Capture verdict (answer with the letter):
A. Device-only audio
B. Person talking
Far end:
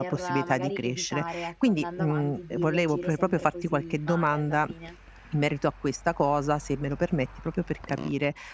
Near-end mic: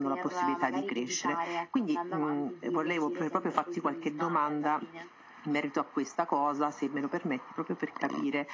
A